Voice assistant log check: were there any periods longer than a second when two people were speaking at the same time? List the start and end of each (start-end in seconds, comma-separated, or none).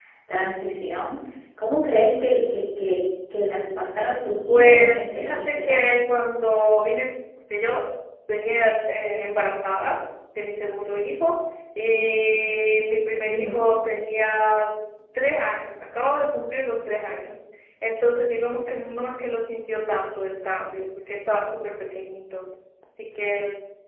4.5-6.0